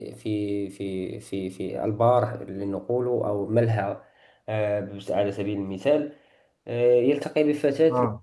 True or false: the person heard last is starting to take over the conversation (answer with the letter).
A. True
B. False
B